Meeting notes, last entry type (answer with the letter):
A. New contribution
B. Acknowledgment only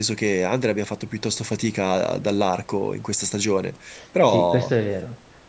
A